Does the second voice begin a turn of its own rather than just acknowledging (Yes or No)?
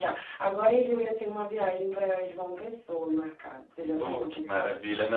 Yes